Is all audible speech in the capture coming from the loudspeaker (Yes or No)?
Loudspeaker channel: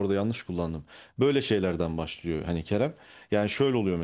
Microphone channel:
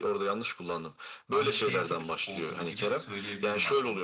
No